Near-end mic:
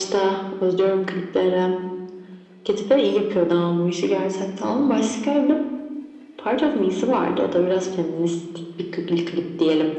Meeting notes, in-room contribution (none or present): none